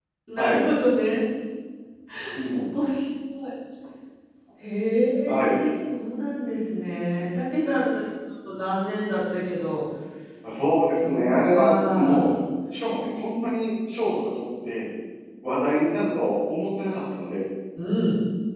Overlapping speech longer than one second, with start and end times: 10.9-12.3

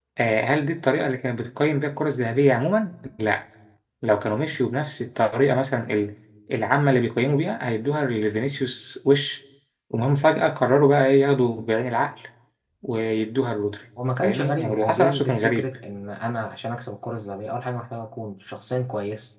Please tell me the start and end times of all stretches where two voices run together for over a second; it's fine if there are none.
14.2-15.7

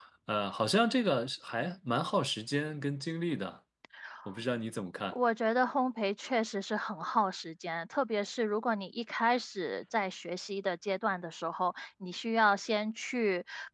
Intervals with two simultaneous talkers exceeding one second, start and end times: none

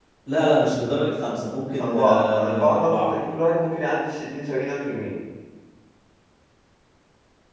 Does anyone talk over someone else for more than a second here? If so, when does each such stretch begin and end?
1.8-3.1

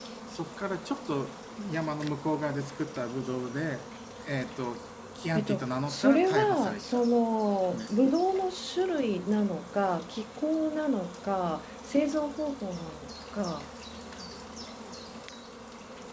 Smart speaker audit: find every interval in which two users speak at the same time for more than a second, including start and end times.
5.3-7.0

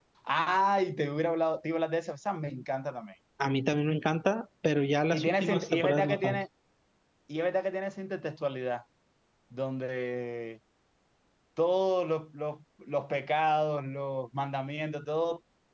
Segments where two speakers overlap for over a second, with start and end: 5.1-6.4

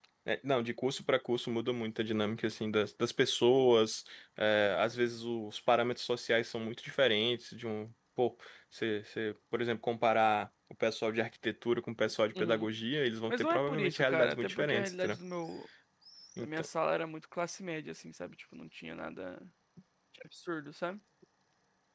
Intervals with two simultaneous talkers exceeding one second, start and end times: 13.3-15.2

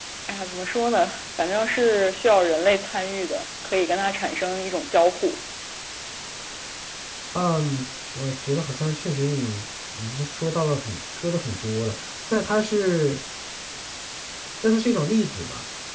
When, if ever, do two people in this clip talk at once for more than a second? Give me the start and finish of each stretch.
none

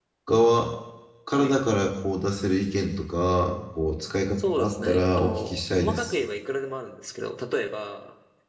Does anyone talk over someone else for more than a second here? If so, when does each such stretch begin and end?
4.6-6.2

